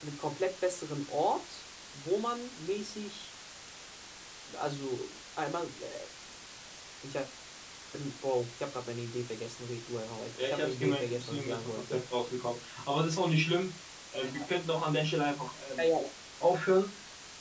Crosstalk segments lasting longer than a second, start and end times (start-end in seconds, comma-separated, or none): 10.4-12.0